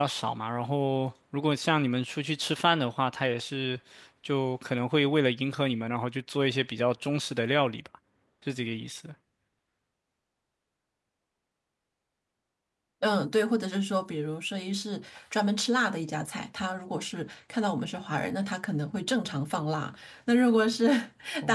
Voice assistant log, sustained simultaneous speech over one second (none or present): none